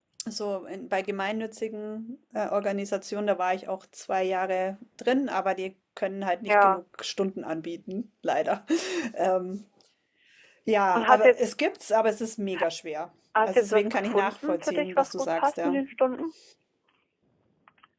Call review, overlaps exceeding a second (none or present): present